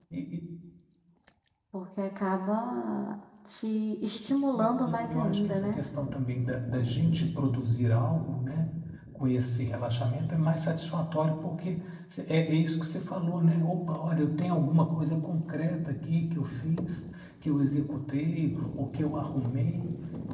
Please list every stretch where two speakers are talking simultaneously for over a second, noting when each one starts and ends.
4.6-5.8

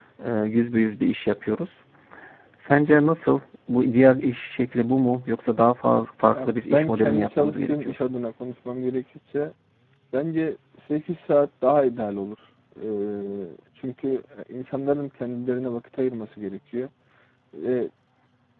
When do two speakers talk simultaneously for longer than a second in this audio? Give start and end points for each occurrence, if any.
6.3-7.9

